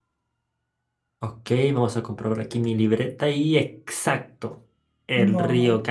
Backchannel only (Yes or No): Yes